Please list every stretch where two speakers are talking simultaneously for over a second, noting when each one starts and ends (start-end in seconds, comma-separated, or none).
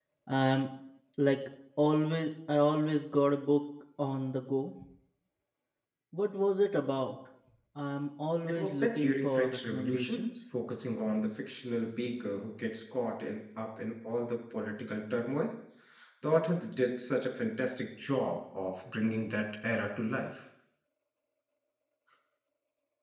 8.5-10.3